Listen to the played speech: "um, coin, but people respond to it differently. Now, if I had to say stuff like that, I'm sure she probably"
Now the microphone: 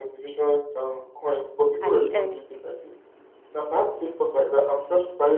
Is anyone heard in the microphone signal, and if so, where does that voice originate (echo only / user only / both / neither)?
both